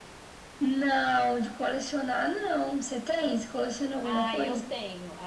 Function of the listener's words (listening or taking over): taking over